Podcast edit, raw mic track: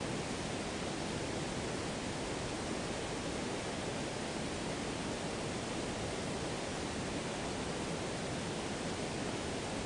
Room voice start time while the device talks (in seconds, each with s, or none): none